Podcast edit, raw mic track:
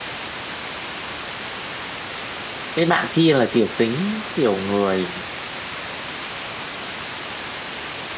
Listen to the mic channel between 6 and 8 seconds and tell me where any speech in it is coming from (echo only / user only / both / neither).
neither